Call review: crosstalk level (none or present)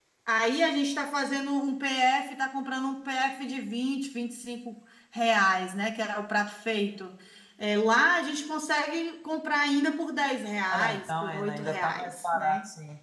present